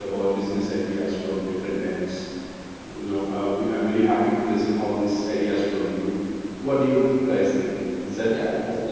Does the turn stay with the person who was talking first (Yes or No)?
No